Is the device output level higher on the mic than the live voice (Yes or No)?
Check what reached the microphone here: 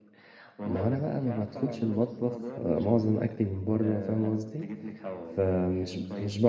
No